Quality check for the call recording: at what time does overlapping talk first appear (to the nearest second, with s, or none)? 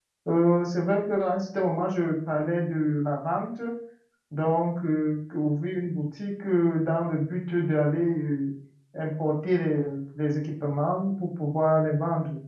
none